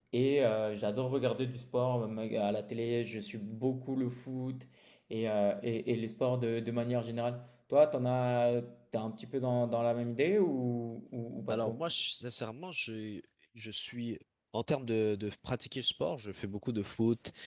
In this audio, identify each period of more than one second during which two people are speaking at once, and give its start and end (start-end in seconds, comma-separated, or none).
none